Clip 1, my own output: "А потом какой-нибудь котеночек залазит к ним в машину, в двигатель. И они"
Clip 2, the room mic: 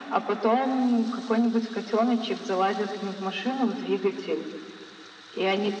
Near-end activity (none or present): none